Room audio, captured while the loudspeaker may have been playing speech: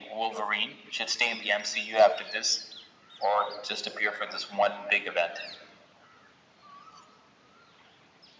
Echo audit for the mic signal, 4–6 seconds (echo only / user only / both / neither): echo only